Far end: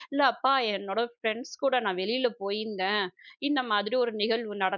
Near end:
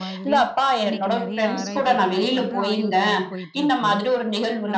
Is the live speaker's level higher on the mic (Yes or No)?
No